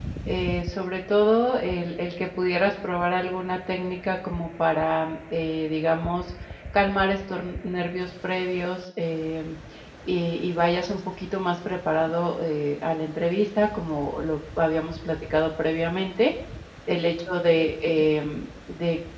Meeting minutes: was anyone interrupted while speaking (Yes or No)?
No